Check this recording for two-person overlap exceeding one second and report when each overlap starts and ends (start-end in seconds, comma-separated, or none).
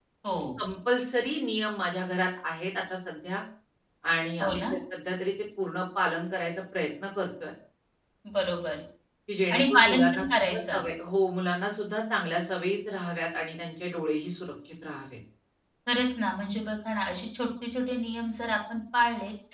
9.5-10.8